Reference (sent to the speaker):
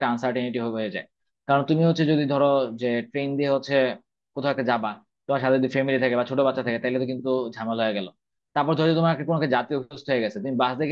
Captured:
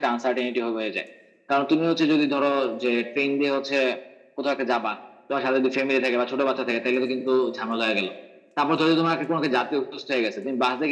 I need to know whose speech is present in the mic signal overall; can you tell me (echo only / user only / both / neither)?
echo only